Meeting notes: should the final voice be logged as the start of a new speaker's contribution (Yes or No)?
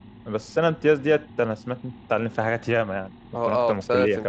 Yes